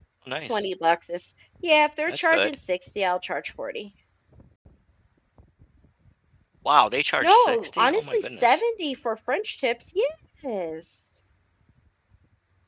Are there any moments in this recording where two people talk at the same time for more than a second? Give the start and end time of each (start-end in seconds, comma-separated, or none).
7.2-8.6